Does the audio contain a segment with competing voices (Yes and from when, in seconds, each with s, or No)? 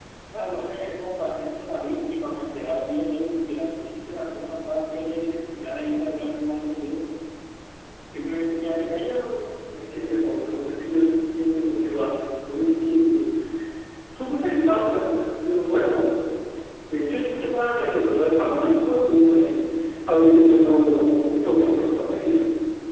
No